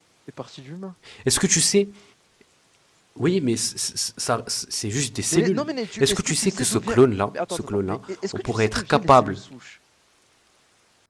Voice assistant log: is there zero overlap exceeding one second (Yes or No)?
No